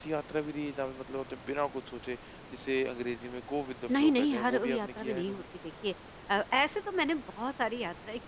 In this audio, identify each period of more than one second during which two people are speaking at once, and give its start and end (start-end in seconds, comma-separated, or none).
3.9-5.4